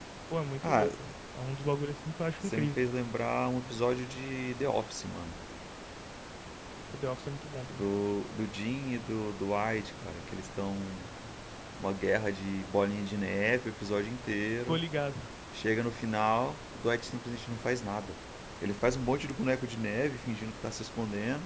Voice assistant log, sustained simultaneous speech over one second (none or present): none